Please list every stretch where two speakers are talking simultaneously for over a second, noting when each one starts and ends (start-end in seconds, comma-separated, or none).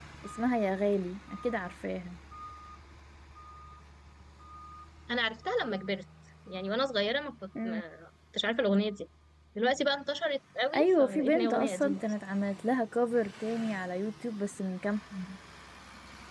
10.8-12.0